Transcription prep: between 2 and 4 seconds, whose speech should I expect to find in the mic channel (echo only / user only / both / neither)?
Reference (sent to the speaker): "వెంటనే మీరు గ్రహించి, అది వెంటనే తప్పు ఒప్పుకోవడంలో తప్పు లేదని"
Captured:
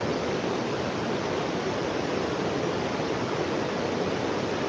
neither